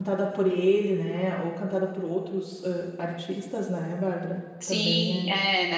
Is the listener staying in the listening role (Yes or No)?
No